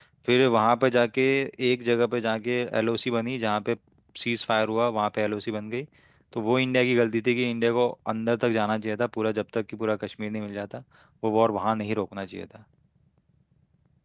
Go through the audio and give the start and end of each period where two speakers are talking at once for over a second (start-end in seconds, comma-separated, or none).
none